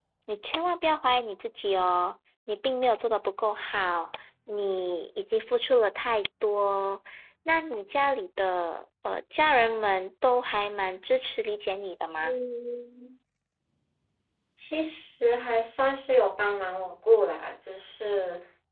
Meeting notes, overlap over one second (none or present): none